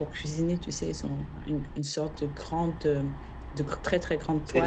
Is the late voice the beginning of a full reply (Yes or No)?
Yes